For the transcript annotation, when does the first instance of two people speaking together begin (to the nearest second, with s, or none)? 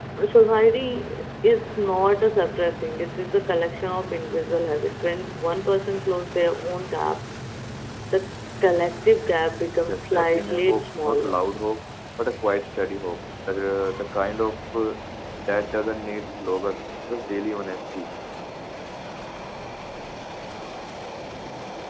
10 s